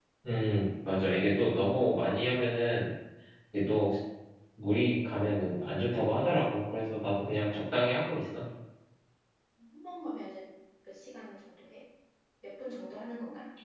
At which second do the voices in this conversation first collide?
none

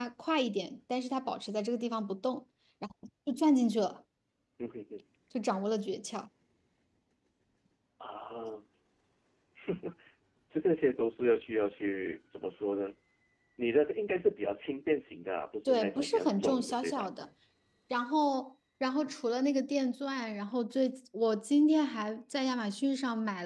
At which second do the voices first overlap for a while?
16 s

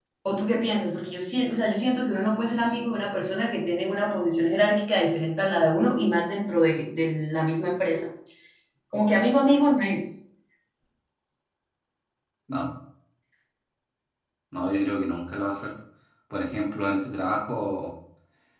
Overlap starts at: none

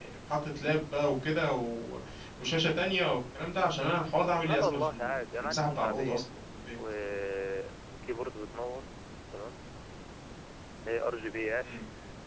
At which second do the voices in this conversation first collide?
4 s

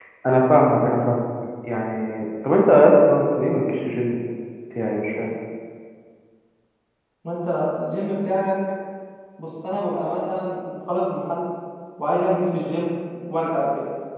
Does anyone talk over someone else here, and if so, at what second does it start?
none

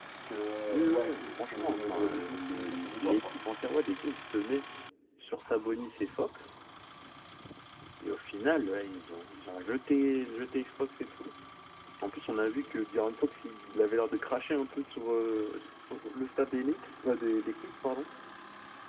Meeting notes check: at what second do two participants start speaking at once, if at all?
1 s

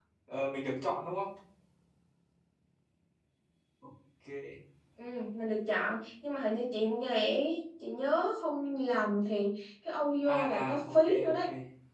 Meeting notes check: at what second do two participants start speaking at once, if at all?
10 s

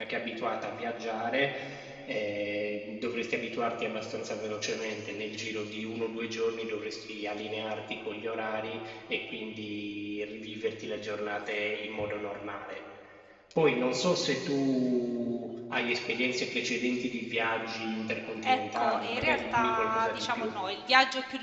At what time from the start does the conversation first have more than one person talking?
18 s

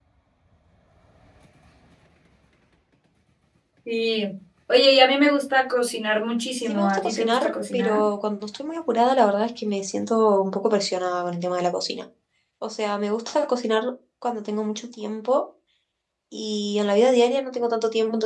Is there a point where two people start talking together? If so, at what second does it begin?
7 s

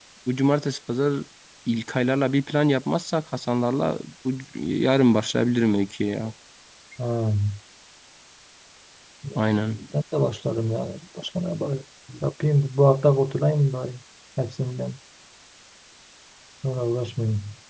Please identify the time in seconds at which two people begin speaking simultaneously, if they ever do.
none

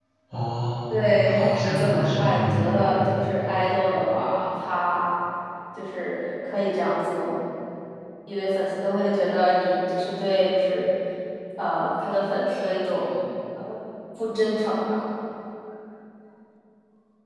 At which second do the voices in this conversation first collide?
1 s

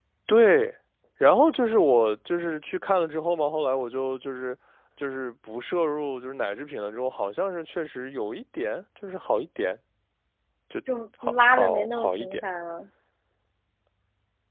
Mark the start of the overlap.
11 s

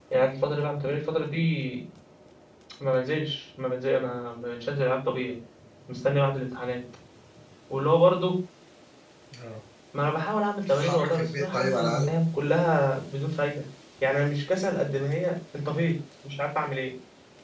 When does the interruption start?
11 s

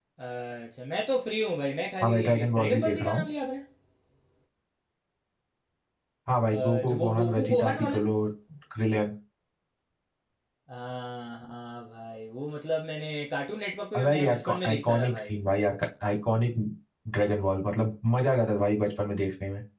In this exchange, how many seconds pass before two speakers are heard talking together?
2 s

